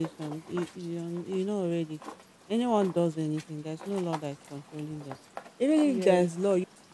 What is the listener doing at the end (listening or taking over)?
listening